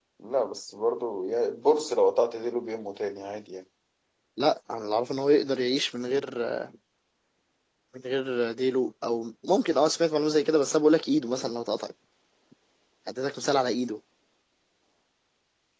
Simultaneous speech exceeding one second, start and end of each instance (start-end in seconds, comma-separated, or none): none